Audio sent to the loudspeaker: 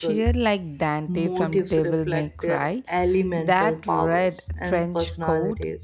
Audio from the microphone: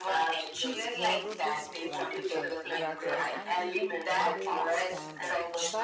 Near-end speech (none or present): present